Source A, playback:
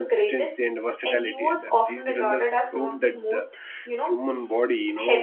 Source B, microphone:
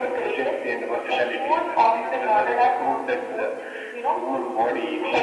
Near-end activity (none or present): none